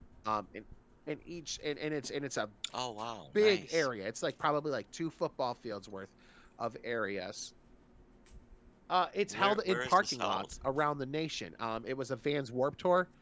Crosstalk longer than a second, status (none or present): present